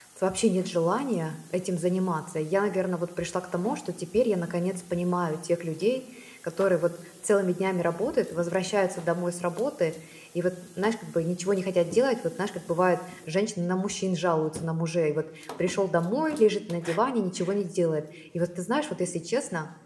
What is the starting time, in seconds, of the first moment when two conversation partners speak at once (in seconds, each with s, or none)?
none